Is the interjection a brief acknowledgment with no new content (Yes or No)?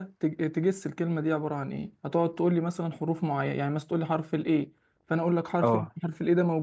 Yes